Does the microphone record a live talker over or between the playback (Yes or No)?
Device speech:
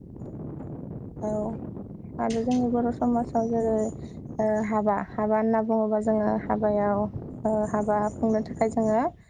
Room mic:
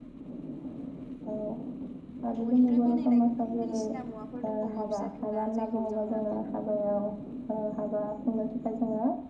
Yes